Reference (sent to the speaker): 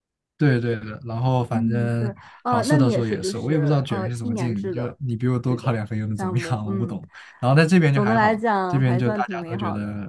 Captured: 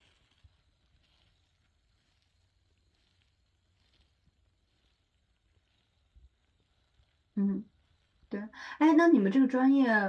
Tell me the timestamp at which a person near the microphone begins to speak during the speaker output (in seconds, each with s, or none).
7.3 s